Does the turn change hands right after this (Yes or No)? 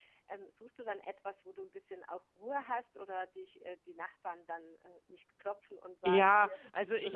Yes